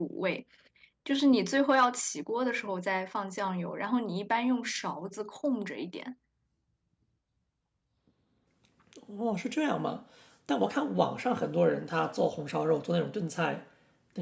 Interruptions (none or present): none